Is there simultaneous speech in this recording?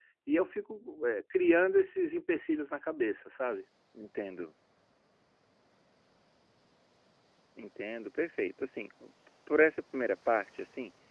No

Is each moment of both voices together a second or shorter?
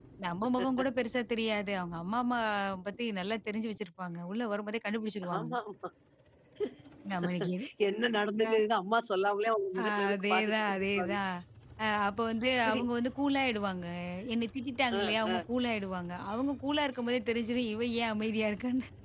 No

